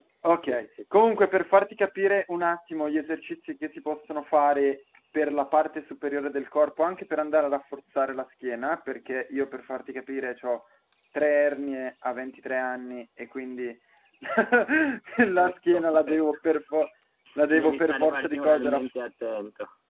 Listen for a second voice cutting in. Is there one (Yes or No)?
Yes